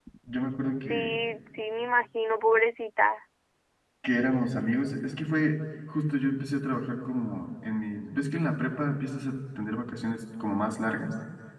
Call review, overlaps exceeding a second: none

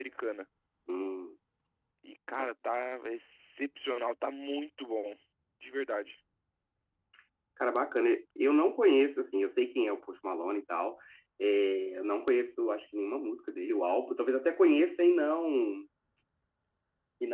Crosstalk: none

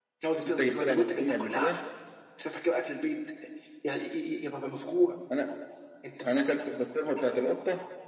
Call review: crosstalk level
present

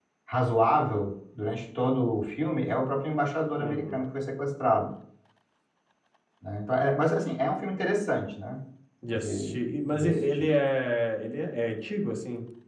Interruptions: present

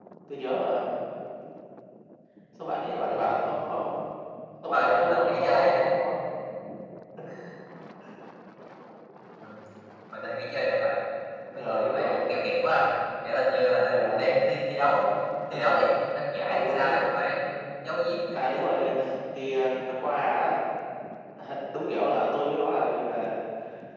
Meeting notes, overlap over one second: present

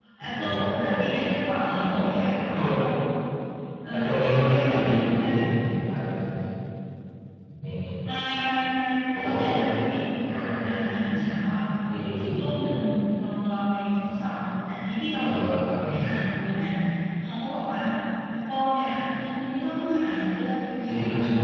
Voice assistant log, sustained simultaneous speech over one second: present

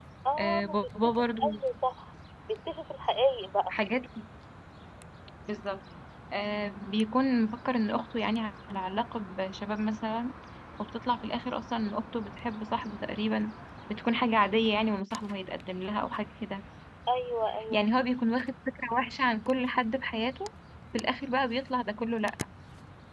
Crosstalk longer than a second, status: present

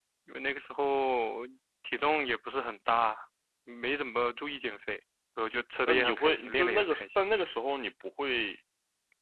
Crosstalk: present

